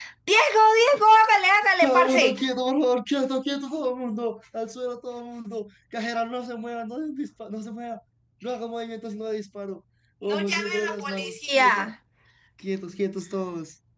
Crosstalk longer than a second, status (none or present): present